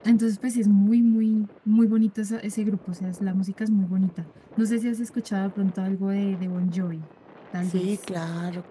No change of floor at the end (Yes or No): No